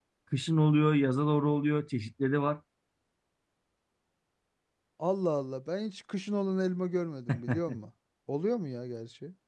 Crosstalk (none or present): none